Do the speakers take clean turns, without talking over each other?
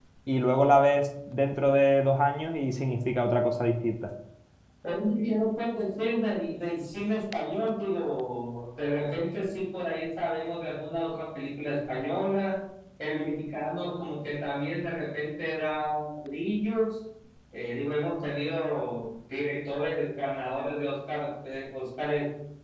Yes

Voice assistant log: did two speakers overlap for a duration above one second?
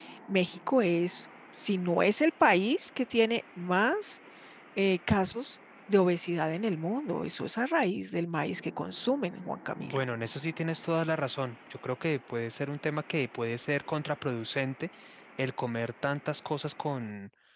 No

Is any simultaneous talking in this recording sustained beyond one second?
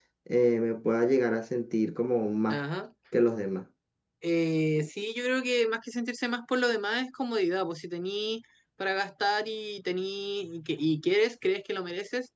No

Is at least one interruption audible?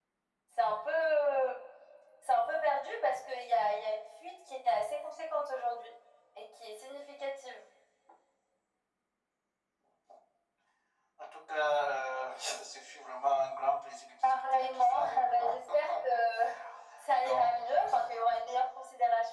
Yes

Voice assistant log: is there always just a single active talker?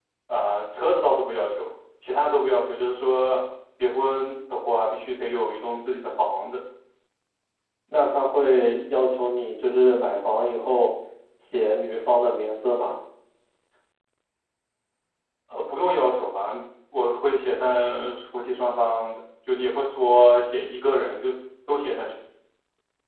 Yes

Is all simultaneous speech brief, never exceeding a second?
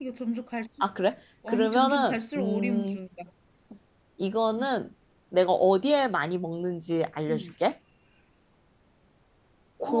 No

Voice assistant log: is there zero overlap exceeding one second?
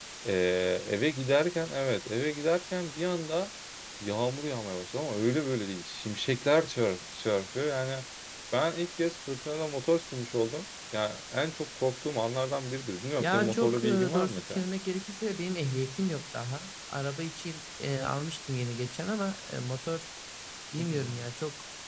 No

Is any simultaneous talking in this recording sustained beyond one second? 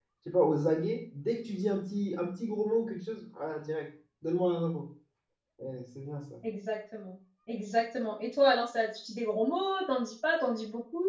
No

